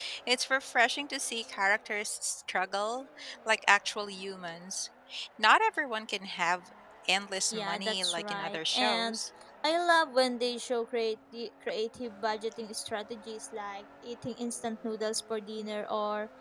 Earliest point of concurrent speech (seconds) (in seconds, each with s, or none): 7.5 s